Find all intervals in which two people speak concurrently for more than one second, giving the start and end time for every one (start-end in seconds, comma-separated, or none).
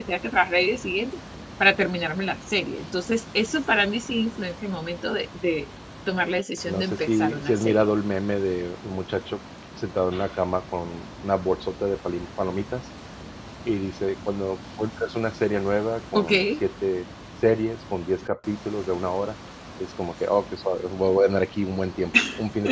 6.7-7.9